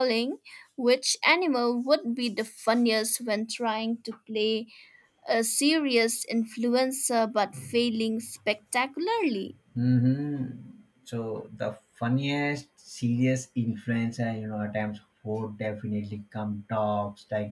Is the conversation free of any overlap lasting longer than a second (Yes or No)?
Yes